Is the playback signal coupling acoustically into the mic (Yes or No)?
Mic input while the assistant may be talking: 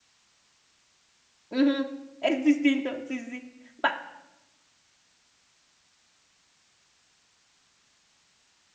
No